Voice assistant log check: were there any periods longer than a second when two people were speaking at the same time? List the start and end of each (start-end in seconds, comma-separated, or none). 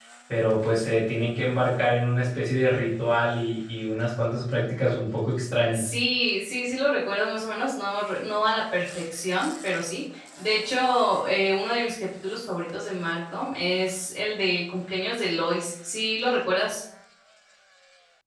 none